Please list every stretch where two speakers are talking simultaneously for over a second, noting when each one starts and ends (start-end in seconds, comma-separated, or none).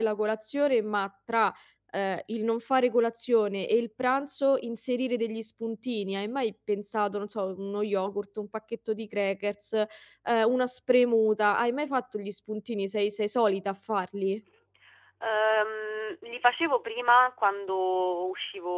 none